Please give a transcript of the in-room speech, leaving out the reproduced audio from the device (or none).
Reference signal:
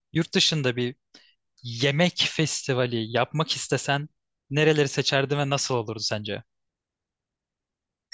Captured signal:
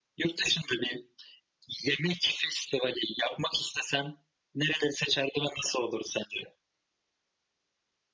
none